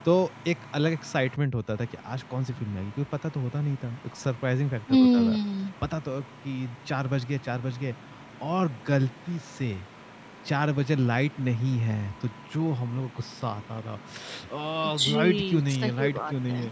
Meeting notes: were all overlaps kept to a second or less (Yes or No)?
No